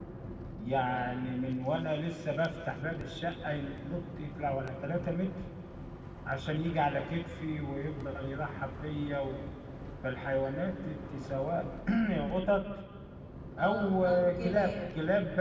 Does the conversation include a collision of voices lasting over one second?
Yes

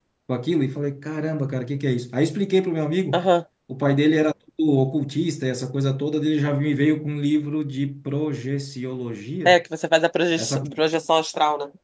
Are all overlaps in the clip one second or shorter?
Yes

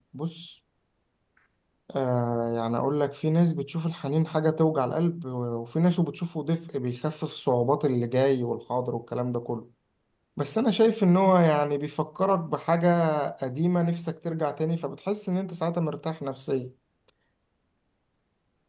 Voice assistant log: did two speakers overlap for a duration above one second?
No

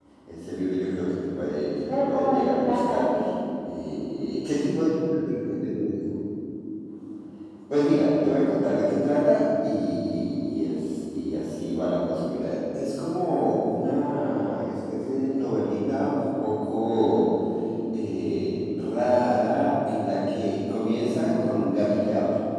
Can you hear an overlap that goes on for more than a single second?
Yes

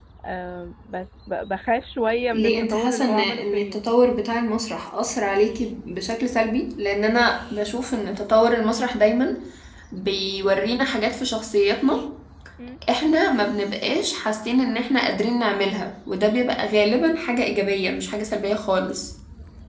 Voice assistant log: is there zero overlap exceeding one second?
No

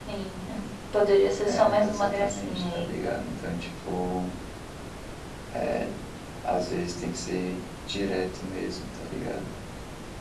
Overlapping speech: Yes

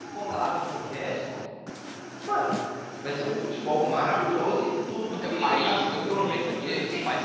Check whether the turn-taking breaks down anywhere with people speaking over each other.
Yes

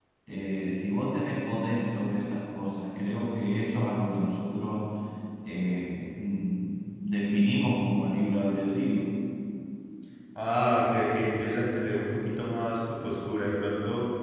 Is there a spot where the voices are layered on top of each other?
No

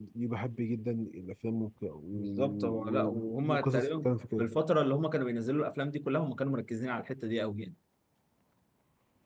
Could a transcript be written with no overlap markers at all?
No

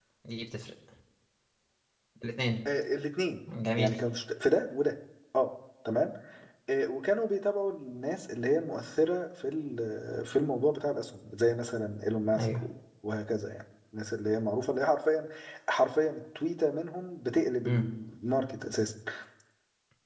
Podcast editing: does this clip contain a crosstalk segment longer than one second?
No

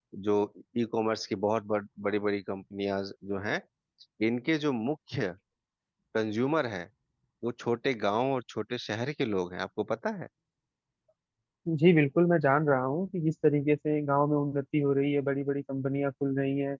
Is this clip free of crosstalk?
Yes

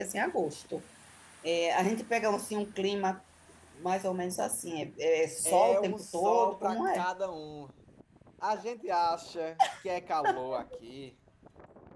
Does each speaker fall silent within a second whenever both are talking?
No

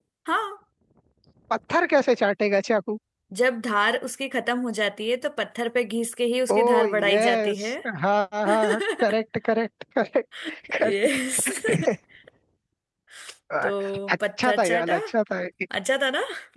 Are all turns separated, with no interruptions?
No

